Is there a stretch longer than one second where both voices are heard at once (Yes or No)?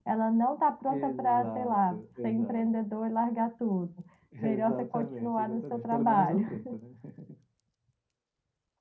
Yes